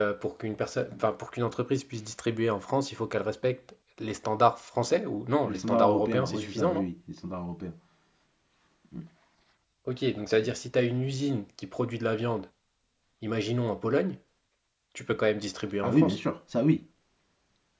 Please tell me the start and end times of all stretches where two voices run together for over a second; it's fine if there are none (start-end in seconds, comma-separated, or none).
5.4-6.9